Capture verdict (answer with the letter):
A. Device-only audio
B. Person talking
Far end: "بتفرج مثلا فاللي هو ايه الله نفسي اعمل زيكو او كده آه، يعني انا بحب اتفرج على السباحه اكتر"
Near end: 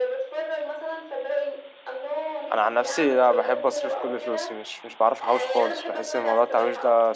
B